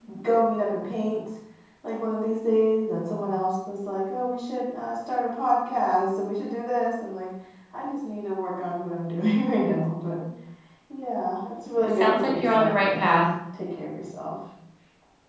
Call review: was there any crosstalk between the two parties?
Yes, from 11.8 s

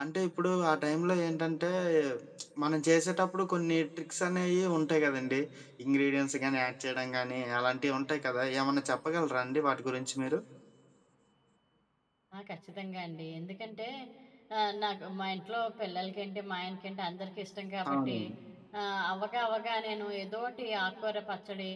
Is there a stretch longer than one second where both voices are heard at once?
No

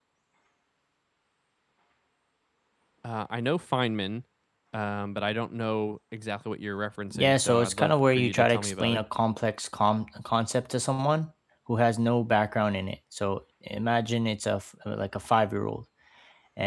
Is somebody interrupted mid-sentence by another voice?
Yes, from 7.1 s

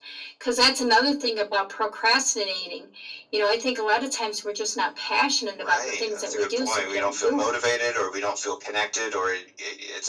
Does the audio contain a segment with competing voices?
Yes, from 5.6 s

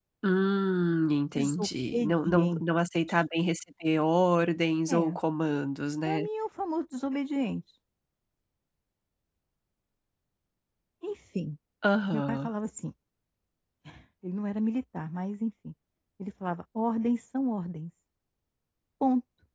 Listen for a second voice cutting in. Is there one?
Yes, from 1.4 s

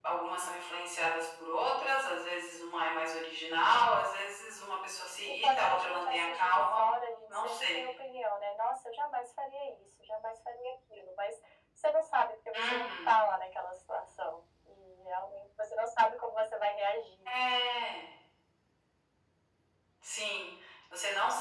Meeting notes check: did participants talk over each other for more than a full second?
Yes, from 5.2 s

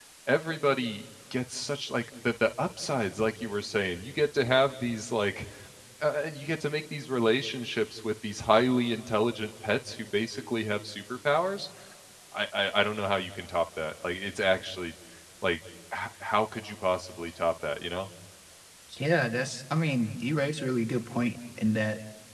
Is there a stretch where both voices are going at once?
No

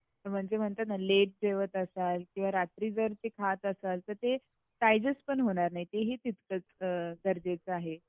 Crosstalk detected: No

